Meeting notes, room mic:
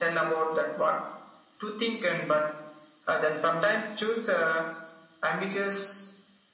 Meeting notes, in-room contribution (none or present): none